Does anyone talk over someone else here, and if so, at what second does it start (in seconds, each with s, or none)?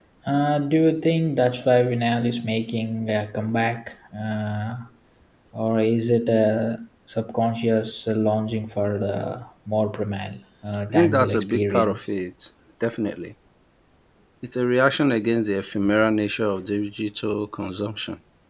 10.9 s